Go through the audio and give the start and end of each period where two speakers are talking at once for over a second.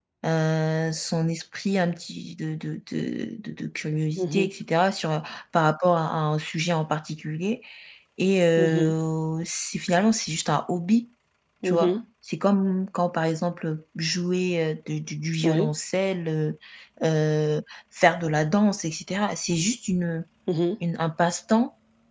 none

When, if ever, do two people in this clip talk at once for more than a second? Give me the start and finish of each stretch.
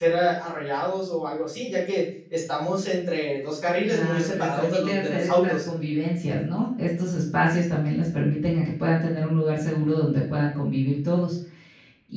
3.9-5.5

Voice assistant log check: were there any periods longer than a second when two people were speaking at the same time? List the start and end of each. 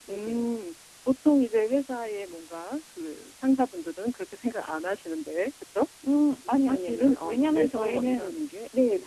6.5-8.4

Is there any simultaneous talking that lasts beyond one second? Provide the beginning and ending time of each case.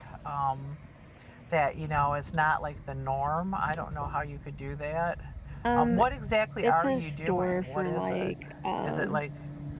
6.6-8.3

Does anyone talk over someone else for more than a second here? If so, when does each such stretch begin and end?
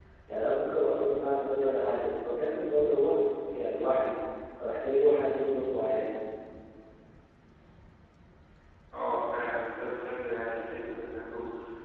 none

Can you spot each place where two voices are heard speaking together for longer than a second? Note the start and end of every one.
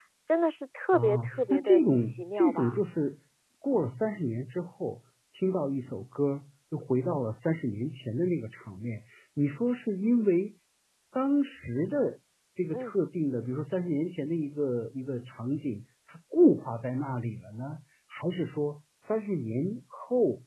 0.9-2.8

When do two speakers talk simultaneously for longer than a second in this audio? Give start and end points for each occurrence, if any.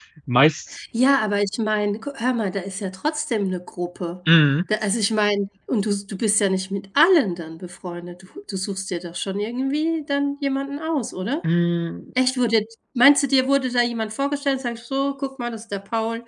none

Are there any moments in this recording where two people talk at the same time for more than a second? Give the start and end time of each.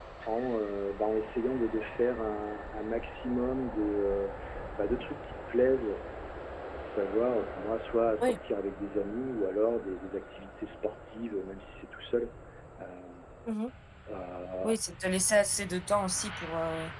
none

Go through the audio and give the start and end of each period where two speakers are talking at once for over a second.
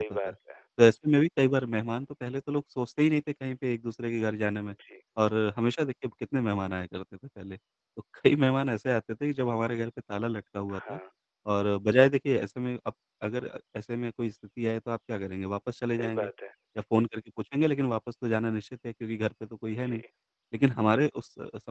none

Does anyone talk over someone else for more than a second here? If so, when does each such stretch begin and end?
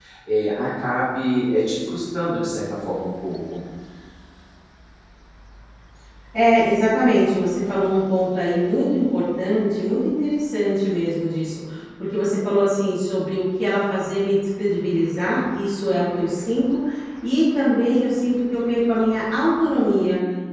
none

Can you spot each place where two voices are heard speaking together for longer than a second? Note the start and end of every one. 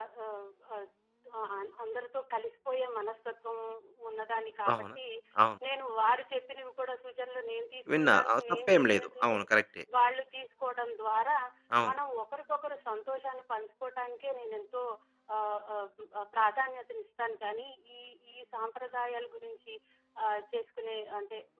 8.0-9.5

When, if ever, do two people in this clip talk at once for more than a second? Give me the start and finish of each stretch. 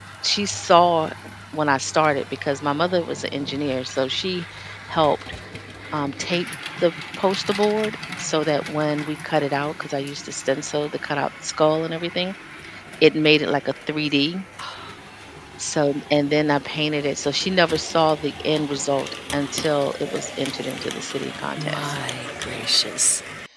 none

